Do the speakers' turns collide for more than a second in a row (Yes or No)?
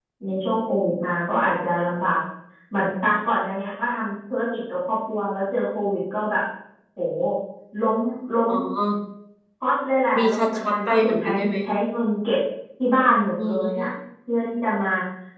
Yes